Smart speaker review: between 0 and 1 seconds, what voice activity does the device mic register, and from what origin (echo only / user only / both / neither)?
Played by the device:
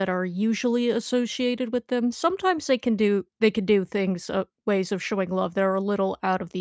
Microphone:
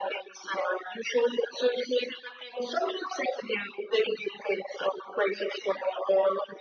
echo only